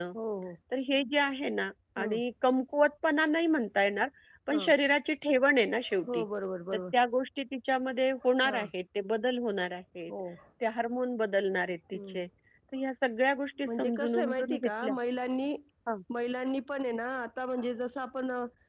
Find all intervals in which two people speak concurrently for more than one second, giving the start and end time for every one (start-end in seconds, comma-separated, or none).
13.7-14.9